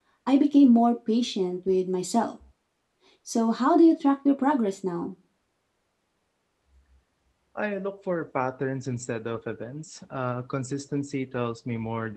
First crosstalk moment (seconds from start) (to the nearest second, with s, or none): none